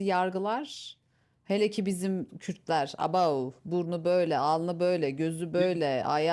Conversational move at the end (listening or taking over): listening